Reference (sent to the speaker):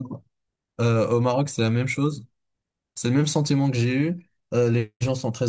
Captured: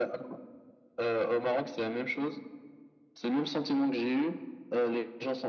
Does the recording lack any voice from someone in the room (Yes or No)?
Yes